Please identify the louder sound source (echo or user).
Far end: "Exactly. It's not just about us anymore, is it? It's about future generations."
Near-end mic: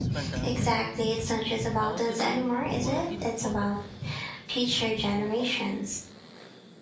echo